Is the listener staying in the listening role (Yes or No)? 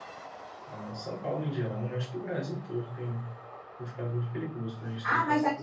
No